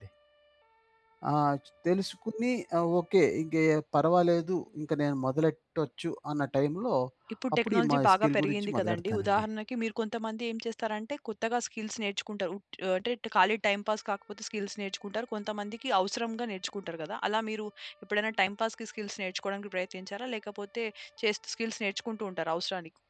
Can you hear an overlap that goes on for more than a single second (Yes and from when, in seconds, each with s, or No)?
Yes, from 7.7 s